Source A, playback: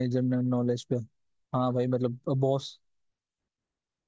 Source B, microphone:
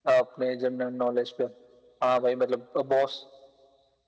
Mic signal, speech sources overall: echo only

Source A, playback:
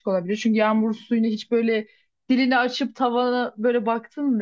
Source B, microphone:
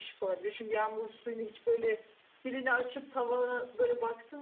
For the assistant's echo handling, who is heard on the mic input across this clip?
echo only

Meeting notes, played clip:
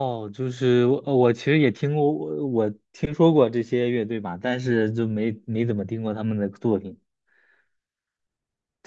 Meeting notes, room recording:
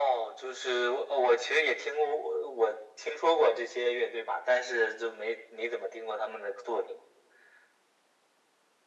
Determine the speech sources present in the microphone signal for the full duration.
echo only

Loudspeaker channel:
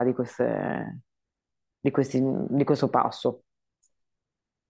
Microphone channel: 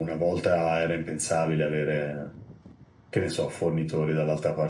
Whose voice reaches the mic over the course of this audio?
user only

